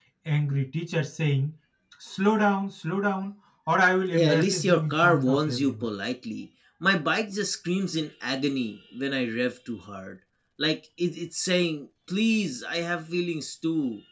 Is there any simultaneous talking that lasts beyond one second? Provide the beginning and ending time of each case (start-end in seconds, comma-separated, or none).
4.1-5.9